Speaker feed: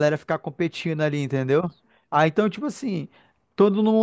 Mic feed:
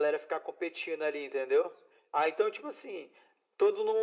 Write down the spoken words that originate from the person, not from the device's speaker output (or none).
none